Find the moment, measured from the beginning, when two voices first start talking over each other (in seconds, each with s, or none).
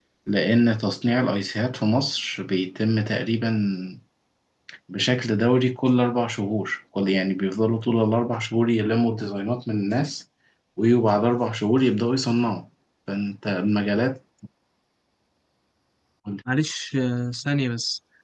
none